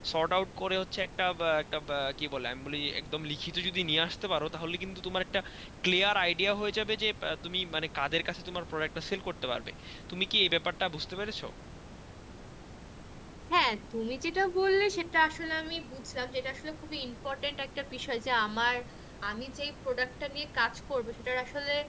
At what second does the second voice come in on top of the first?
none

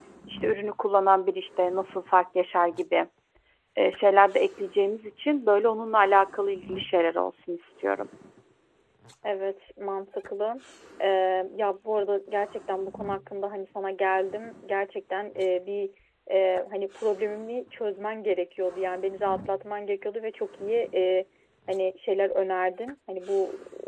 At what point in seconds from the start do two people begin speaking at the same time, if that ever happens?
none

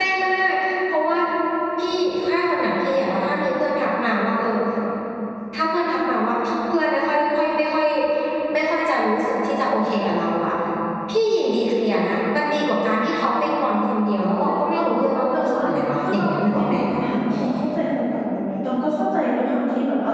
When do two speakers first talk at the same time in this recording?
14 s

